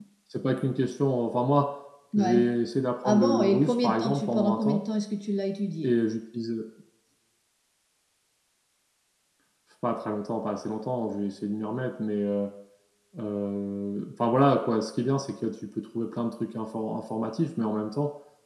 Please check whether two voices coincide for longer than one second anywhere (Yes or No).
Yes